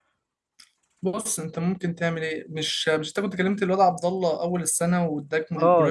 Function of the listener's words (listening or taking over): taking over